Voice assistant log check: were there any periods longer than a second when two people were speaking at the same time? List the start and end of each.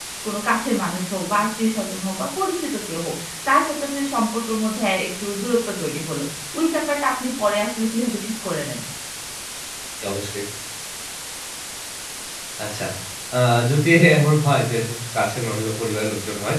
none

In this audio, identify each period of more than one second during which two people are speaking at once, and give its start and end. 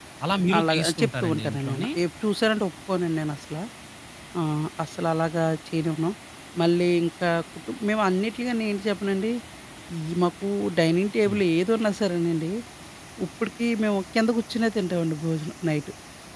0.6-1.9

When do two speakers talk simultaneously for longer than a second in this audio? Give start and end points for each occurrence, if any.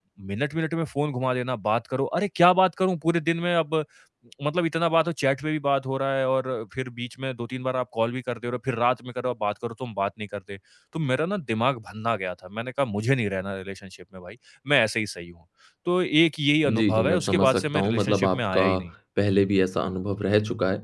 16.8-18.6

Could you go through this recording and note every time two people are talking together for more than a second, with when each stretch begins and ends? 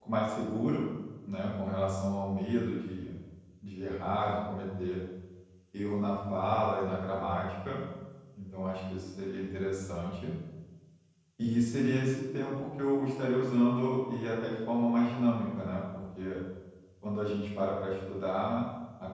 none

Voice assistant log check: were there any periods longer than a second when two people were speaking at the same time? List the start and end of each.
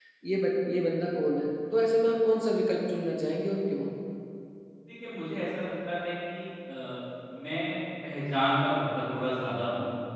none

